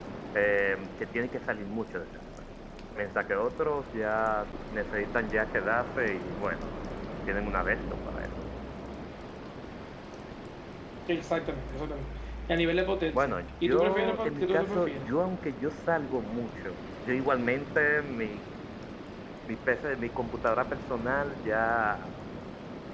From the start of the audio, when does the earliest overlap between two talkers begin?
13.1 s

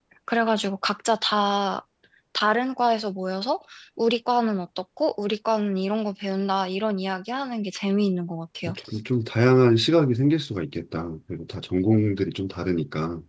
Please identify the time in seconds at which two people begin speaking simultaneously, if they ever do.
none

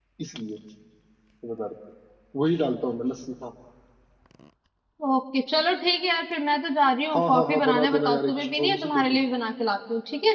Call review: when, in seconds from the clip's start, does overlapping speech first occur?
7.1 s

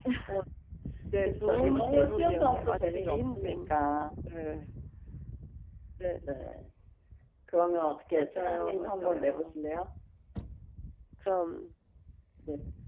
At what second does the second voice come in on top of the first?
1.2 s

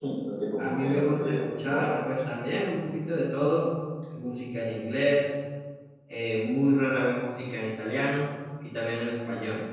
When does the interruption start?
0.6 s

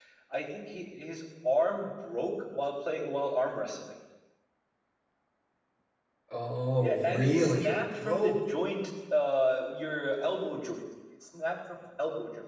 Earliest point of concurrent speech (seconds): 6.8 s

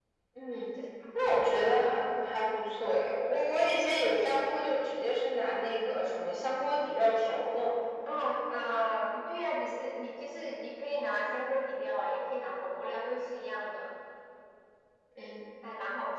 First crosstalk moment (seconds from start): none

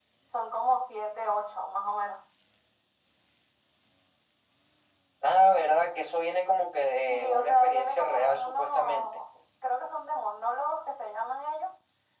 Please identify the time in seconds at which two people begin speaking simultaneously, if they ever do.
7.1 s

